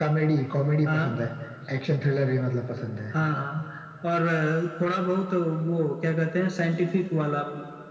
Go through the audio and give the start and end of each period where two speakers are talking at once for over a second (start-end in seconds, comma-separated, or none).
none